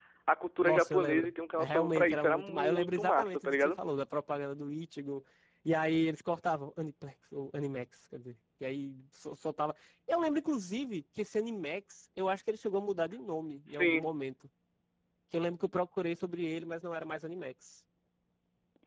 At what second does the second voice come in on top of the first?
0.6 s

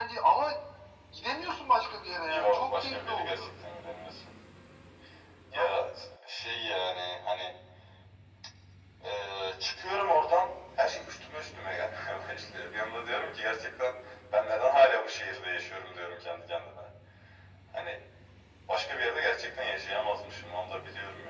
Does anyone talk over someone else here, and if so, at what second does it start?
2.3 s

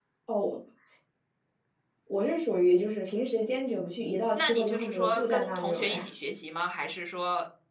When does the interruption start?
4.3 s

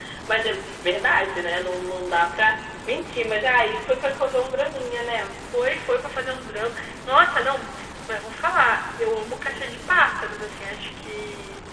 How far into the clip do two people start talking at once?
none

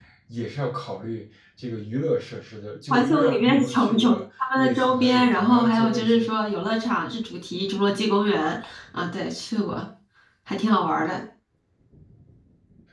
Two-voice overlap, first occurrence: 2.9 s

